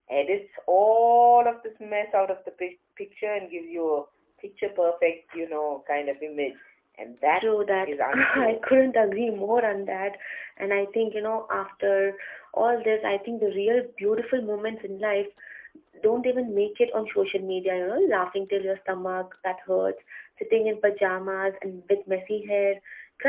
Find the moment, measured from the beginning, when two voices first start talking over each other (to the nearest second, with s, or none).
7 s